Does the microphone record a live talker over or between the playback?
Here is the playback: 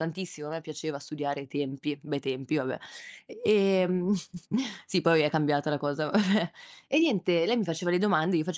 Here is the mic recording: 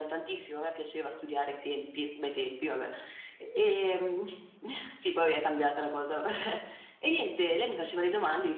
No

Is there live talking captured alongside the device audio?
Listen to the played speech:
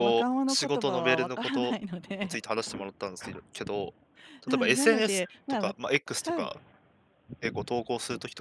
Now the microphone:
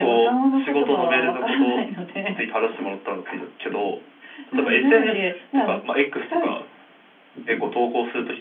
No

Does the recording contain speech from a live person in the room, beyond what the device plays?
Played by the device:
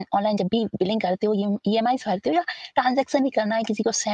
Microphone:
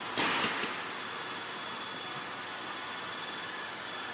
No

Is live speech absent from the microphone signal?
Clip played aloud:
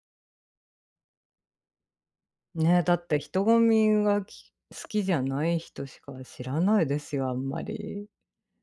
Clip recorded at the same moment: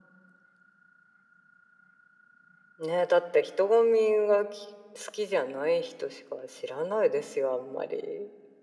Yes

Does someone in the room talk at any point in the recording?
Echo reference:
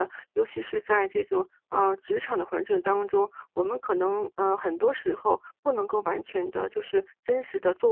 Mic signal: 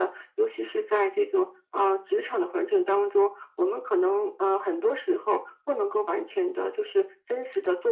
No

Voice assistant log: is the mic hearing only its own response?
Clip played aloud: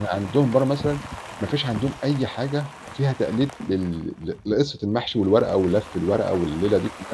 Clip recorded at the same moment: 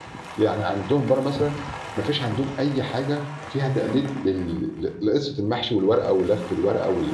Yes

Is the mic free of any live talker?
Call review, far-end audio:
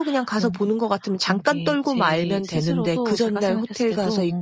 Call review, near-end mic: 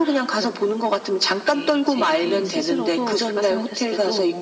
No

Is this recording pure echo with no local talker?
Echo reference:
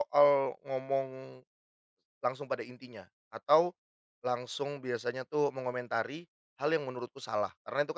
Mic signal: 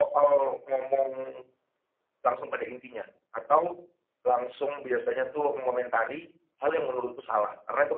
Yes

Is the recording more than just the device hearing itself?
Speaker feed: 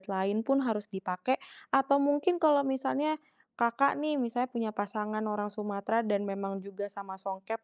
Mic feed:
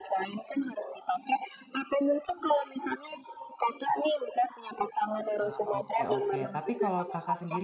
Yes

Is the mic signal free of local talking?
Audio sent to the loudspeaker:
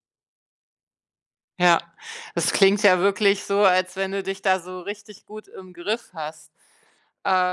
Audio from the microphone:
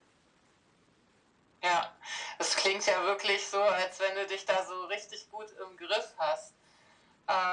Yes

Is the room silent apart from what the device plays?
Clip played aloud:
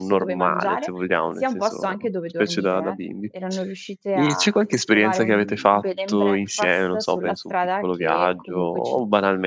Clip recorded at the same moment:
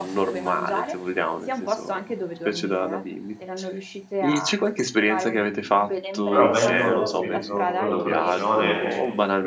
No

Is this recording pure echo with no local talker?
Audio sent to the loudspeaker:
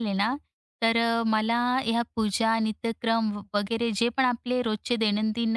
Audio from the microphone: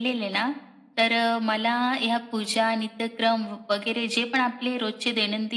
Yes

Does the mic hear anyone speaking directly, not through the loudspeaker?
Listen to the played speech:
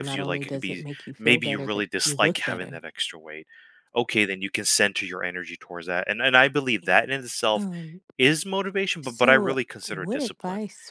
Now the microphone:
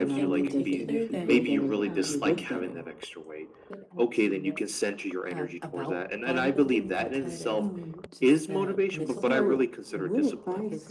Yes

